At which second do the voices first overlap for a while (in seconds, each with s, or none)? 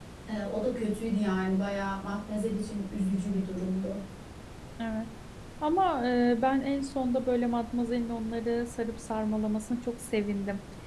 none